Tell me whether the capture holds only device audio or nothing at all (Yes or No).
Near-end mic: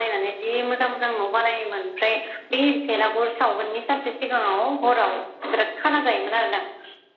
Yes